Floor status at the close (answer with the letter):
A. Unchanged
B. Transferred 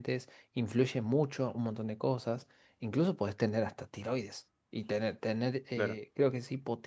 A